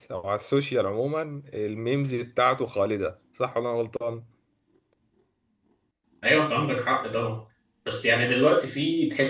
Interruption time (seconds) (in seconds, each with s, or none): none